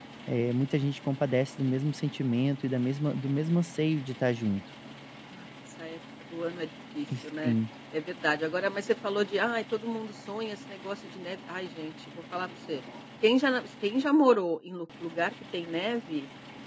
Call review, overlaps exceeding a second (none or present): none